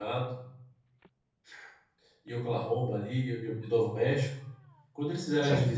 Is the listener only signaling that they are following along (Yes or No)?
Yes